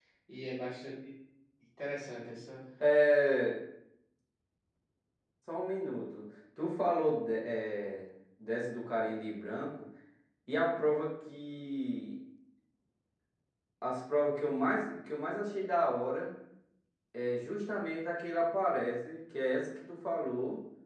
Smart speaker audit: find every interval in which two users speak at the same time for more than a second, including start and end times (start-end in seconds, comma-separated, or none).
none